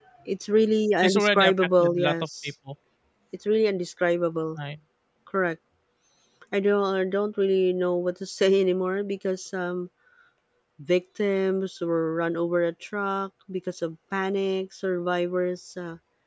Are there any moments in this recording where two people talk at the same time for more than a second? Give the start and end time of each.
1.0-2.5

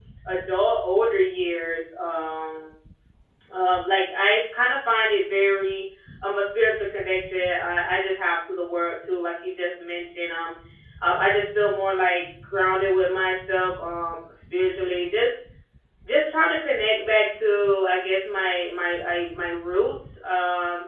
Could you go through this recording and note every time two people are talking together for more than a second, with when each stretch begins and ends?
none

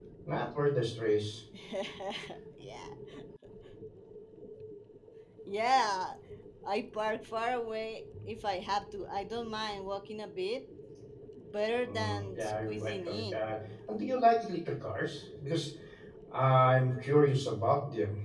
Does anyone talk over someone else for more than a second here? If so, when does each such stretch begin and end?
11.8-13.4

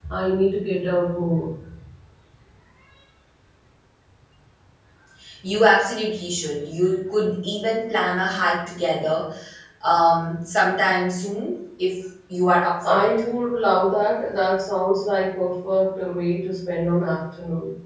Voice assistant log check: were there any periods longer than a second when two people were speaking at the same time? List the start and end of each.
none

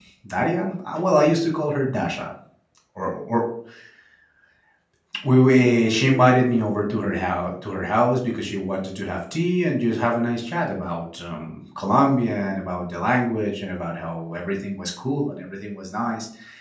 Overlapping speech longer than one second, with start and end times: 5.5-7.2

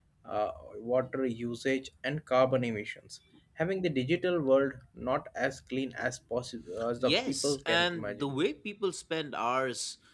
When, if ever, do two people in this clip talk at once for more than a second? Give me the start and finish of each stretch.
7.0-8.2

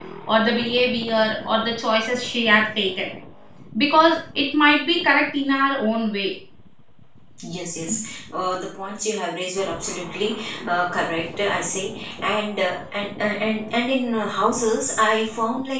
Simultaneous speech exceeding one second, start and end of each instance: none

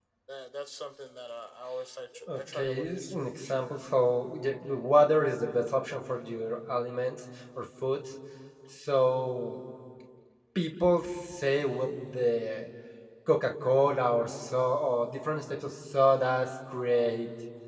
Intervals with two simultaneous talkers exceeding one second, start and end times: 2.4-3.7

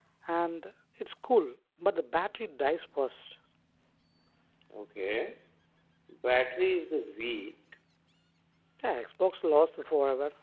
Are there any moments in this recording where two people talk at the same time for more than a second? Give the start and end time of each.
none

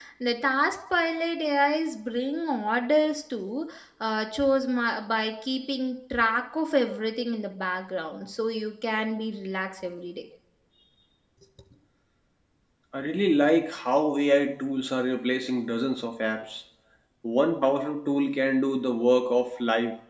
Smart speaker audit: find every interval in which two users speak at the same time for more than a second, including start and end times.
none

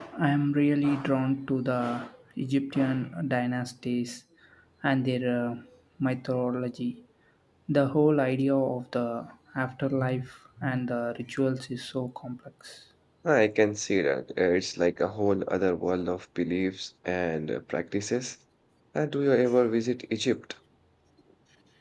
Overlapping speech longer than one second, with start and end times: none

